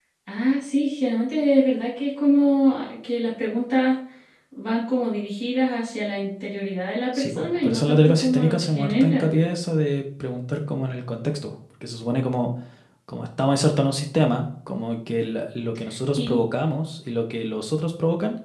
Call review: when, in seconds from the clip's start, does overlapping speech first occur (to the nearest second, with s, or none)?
7 s